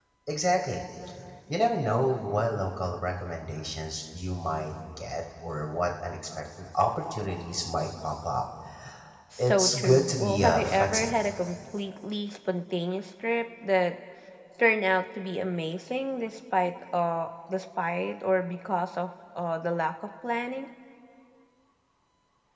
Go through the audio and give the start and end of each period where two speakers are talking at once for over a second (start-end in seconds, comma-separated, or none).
9.4-11.2